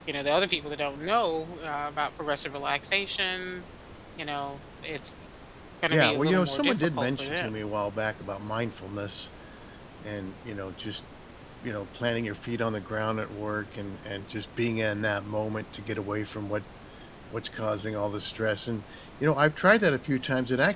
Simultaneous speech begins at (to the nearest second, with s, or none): 6 s